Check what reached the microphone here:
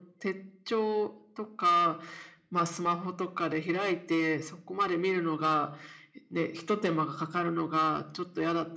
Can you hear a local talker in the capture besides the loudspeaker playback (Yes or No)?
No